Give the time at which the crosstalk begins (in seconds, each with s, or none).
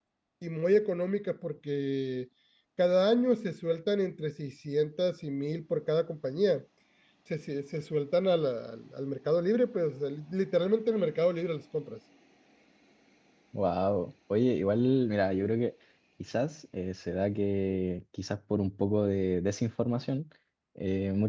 none